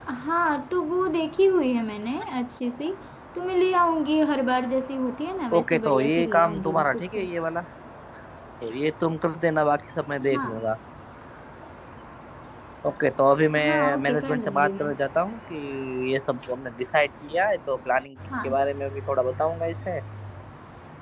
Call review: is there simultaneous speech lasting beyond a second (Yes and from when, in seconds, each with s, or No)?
Yes, from 5.6 s